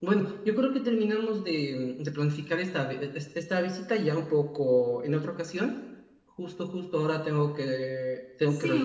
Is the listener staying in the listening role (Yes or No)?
No